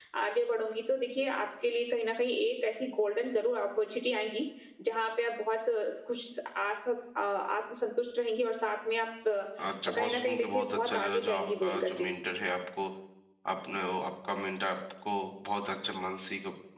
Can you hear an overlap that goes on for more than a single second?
Yes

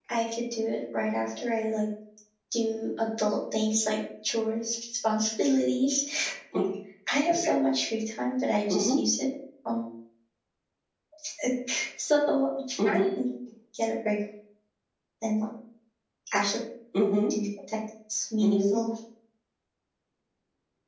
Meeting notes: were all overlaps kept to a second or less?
Yes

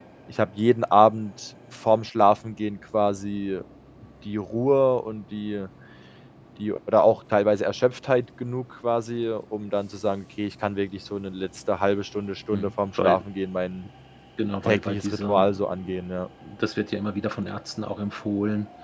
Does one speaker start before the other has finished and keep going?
Yes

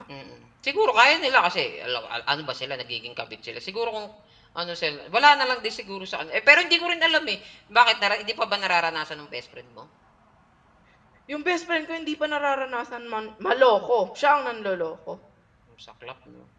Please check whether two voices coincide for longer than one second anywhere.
No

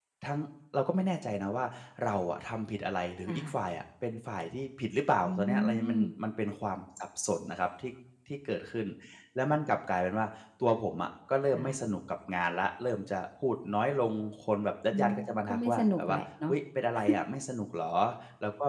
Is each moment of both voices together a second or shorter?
No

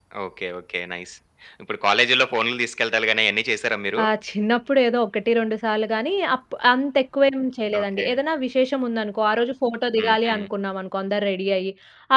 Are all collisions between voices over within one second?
Yes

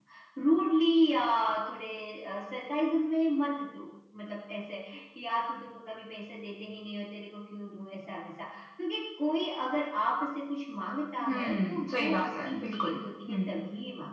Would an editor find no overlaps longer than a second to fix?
No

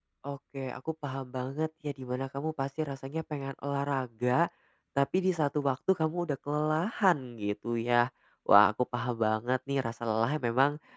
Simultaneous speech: No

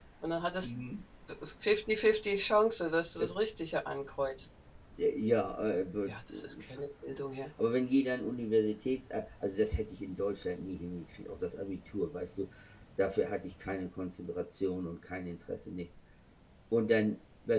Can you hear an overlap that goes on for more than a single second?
No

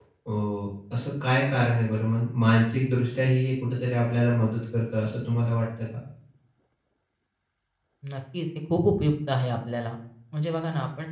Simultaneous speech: No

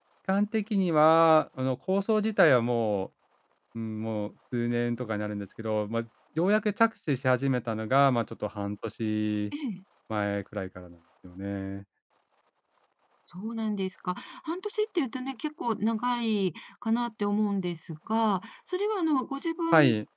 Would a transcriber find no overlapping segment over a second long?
Yes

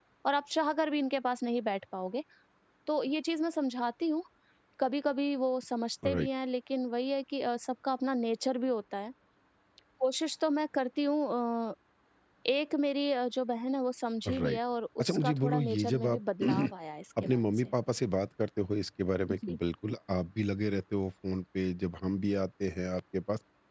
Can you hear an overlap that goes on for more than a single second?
Yes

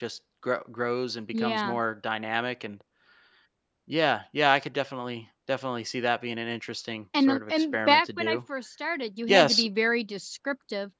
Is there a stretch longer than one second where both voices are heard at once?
Yes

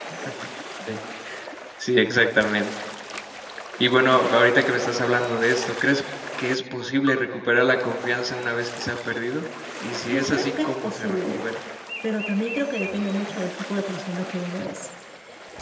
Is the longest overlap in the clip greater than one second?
Yes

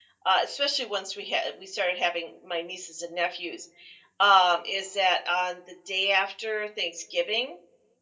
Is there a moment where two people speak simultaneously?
No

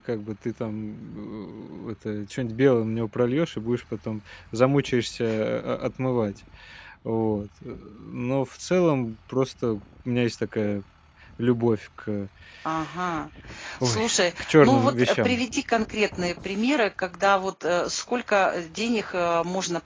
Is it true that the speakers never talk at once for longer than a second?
No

